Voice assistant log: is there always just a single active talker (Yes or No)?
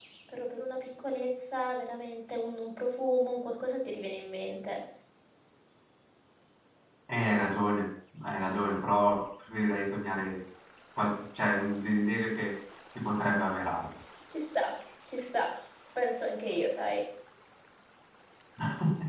Yes